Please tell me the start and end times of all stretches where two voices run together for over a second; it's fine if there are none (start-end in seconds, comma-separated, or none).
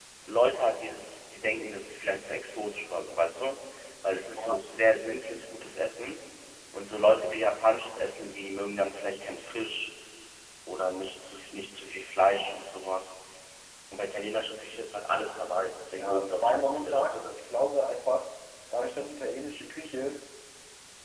16.0-17.4